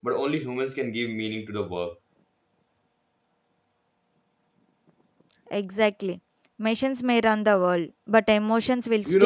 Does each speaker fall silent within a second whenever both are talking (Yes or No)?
Yes